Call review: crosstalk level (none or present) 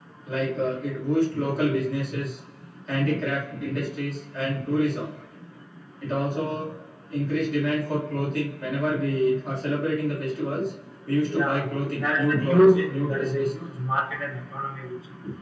present